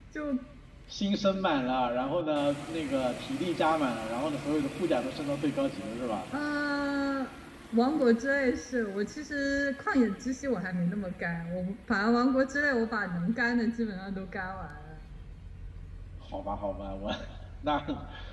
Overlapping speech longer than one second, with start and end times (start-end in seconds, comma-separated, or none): none